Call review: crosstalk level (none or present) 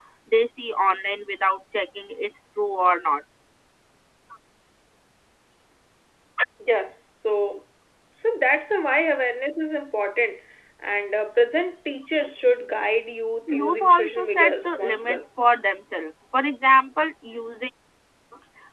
present